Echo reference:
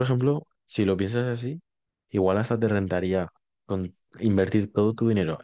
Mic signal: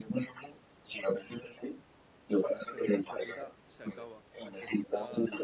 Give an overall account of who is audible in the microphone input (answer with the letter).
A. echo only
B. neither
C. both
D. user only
C